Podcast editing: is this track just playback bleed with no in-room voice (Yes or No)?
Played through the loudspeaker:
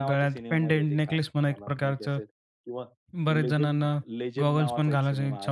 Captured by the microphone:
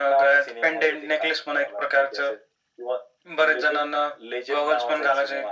Yes